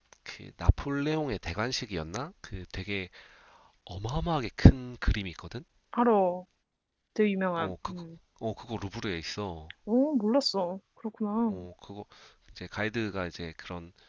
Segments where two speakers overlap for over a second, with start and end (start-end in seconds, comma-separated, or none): none